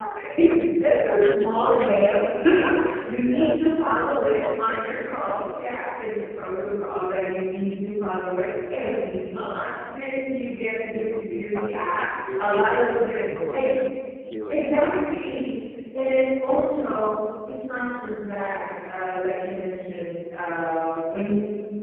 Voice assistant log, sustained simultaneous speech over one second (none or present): present